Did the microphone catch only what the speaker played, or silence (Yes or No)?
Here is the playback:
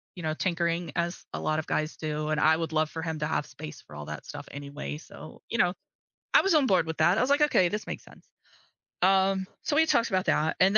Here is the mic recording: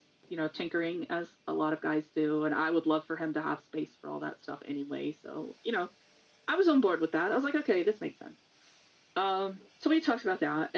Yes